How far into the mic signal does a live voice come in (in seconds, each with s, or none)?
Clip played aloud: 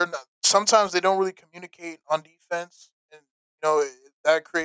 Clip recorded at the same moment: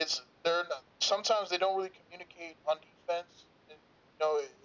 none